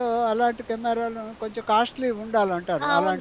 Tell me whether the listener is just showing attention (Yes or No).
No